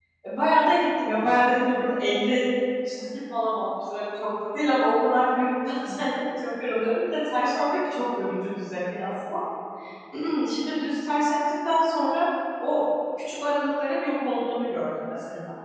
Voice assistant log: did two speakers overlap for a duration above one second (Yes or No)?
No